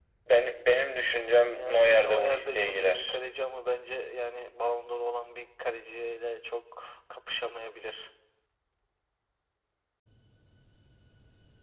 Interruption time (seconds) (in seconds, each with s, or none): 1.4 s